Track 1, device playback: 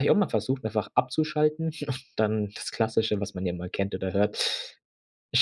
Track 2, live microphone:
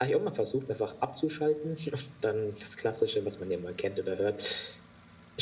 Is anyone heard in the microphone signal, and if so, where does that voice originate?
echo only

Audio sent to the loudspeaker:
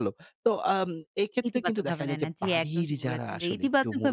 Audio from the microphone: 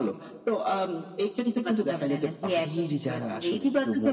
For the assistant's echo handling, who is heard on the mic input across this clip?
echo only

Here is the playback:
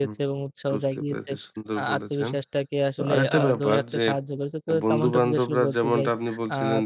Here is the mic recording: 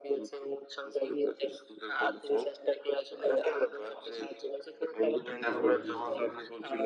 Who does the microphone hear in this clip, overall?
both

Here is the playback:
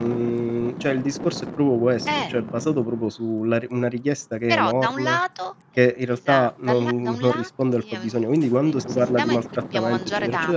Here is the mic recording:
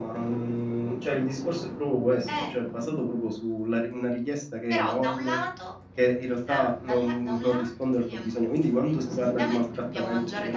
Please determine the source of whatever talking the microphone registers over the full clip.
echo only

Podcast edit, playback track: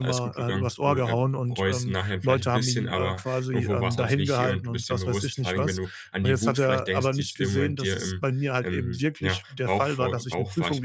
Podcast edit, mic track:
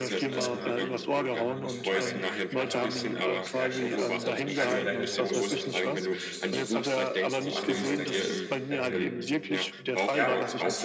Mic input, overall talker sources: both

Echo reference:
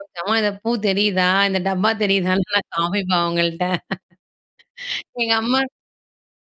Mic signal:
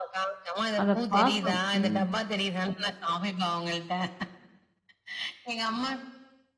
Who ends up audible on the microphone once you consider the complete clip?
both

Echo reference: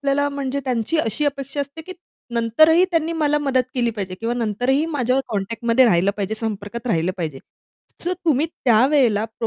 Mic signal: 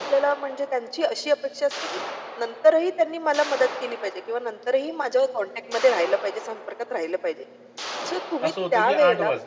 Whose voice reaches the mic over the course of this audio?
both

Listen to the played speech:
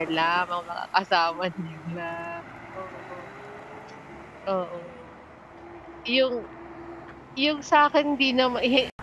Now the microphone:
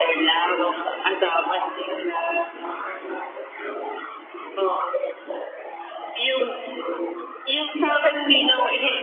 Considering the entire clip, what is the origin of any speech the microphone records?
echo only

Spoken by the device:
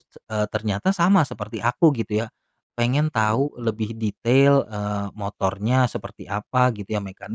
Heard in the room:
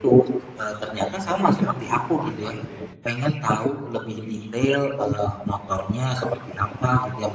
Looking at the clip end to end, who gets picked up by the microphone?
both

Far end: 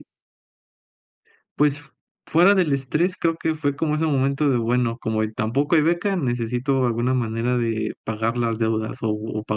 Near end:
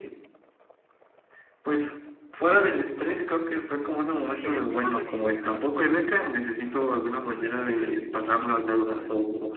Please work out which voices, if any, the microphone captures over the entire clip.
both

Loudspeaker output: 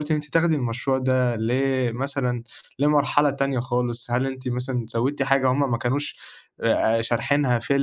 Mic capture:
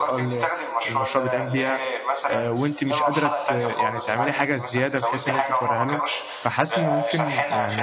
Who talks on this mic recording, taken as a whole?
both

